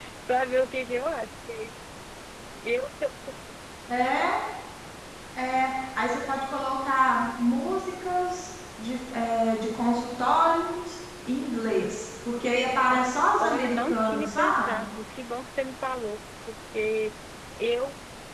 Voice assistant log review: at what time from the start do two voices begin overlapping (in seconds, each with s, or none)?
12.9 s